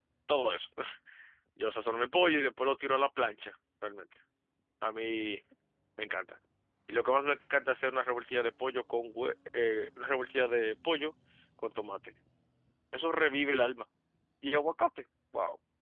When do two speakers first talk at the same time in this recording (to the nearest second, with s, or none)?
none